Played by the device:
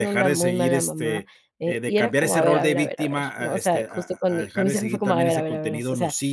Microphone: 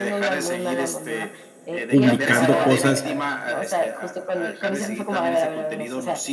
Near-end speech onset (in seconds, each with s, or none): 1.9 s